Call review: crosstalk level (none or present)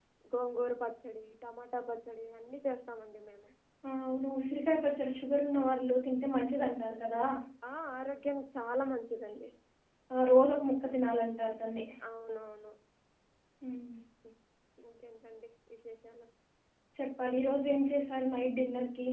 none